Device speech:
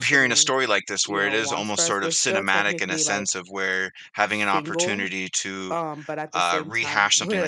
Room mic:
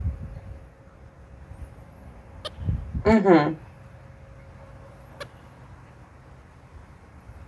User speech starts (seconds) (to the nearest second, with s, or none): 3 s